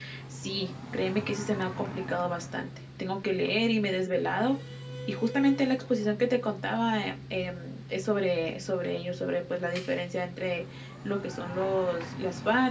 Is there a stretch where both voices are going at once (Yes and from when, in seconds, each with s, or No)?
No